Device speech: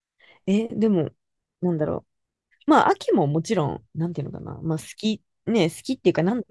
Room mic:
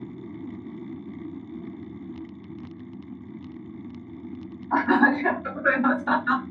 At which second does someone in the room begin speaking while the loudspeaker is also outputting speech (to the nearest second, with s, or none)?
5 s